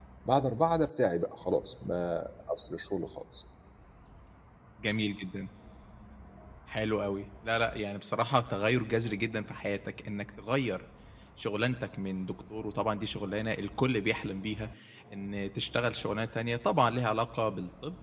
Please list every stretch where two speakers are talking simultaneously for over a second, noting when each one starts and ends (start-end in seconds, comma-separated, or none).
none